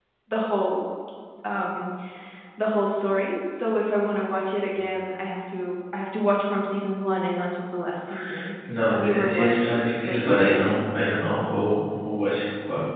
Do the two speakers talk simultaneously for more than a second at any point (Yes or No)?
Yes